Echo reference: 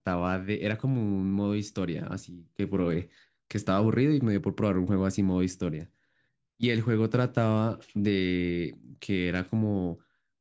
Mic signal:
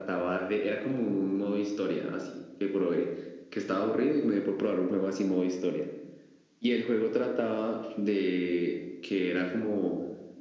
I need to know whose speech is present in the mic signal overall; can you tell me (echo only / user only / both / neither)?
echo only